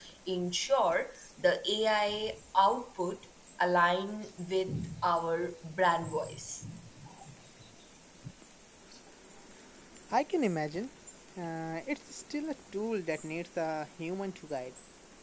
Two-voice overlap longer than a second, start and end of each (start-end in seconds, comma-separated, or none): none